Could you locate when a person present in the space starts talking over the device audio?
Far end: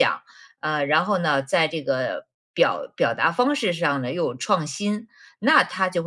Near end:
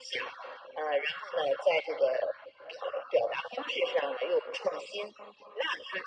none

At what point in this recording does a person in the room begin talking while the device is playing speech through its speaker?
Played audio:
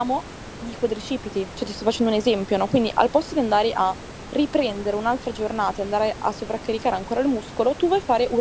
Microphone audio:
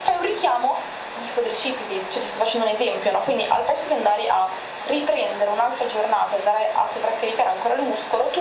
none

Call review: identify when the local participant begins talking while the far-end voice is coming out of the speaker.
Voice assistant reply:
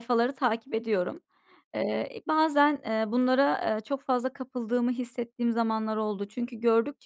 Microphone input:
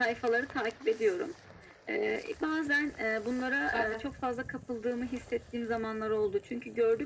3.6 s

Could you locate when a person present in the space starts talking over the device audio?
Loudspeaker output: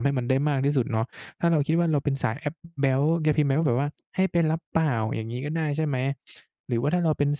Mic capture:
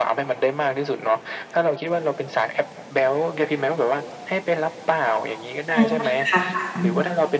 5.7 s

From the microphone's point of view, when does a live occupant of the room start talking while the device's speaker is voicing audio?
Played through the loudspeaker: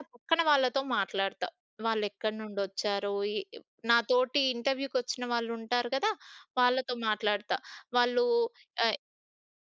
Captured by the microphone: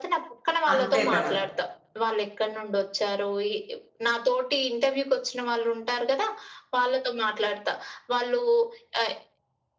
0.7 s

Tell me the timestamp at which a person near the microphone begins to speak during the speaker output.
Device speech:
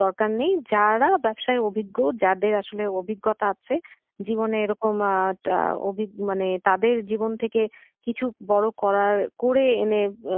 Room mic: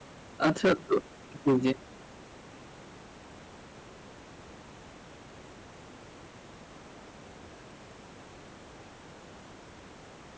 0.5 s

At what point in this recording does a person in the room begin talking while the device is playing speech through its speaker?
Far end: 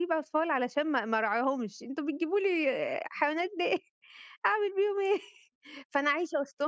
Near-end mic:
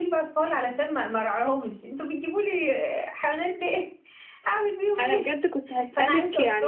5.0 s

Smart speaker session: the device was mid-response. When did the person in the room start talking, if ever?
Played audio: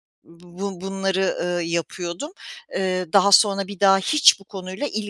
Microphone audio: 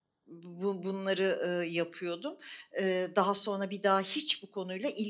none

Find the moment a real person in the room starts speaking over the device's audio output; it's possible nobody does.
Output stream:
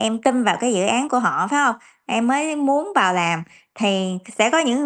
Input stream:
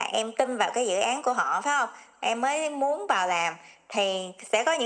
none

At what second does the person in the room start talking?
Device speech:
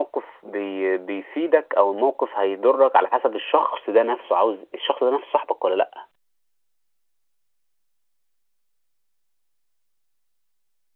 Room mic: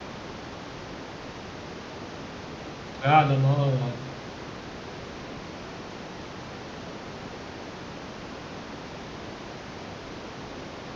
3.0 s

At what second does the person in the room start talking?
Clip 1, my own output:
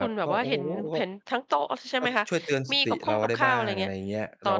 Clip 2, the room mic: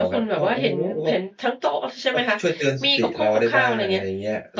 none

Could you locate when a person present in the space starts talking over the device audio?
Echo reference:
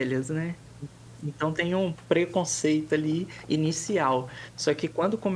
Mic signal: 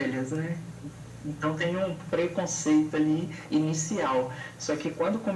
none

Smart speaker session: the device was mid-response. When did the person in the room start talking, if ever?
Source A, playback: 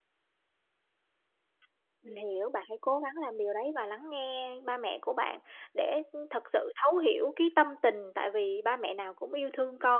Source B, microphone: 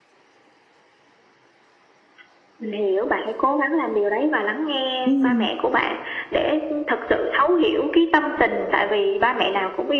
5.0 s

